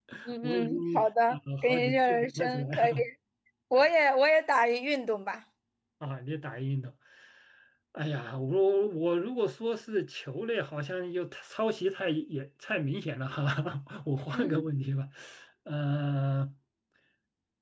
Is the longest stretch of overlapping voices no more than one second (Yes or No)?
No